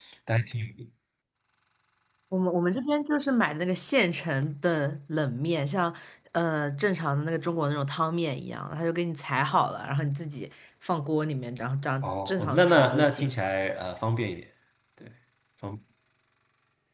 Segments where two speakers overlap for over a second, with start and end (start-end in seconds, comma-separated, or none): 12.0-13.3